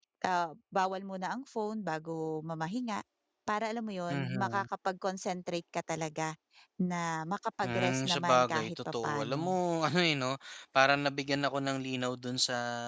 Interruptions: present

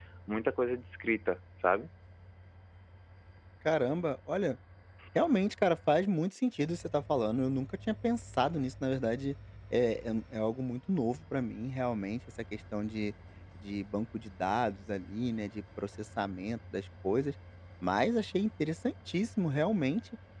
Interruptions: none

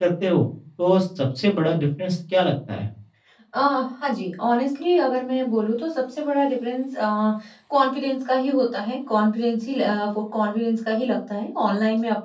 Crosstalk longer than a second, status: none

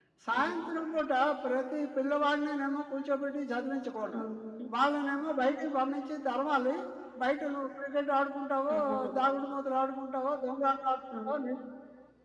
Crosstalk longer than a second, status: none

